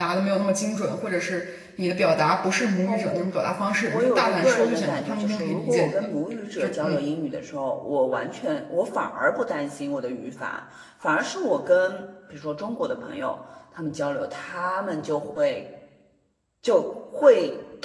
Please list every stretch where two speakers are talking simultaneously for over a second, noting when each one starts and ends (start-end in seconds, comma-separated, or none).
3.8-5.9